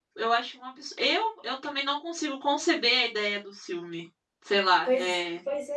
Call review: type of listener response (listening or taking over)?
taking over